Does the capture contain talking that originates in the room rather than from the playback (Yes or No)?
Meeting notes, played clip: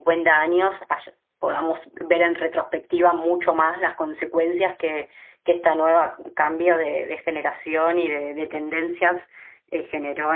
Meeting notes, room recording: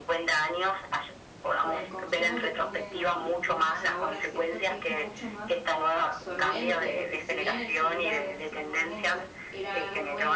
Yes